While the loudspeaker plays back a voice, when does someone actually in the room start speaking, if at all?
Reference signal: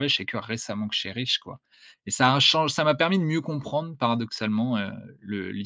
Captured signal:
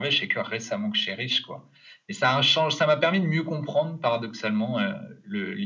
none

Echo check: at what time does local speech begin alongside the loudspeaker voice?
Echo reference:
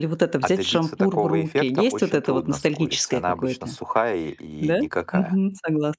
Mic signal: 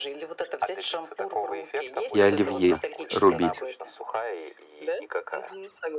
2.1 s

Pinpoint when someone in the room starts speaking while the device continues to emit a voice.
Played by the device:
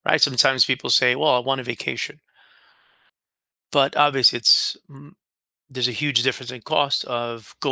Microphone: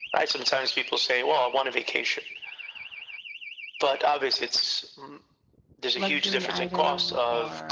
6.0 s

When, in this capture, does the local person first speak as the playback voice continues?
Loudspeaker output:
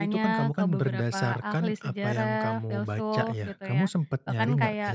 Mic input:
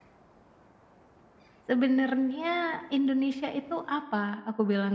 1.7 s

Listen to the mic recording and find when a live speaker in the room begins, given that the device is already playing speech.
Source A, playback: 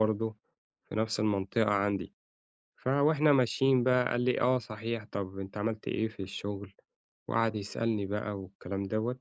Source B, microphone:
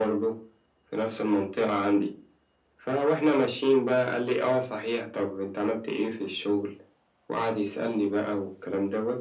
none

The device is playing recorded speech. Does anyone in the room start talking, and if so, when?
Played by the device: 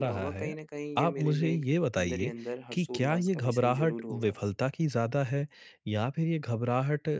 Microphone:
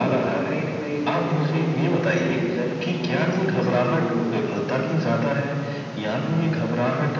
none

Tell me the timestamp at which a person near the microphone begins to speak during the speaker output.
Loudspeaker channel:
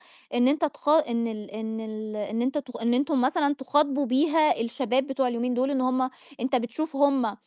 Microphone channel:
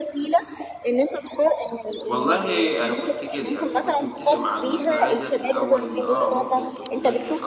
2.1 s

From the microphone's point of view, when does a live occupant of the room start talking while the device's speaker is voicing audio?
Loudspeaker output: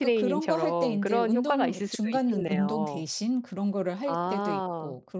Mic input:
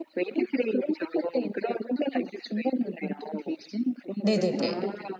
4.2 s

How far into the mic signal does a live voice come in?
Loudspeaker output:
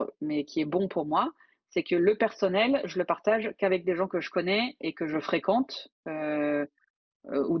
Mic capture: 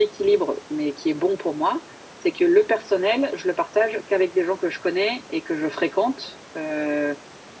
none

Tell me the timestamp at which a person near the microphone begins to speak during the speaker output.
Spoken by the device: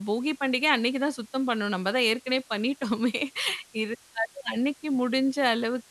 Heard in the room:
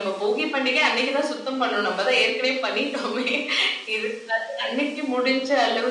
none

